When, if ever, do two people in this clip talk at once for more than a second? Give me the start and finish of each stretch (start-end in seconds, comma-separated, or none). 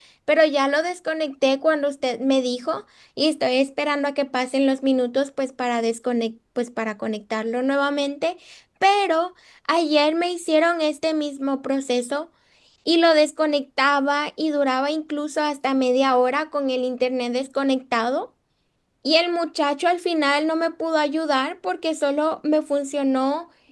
none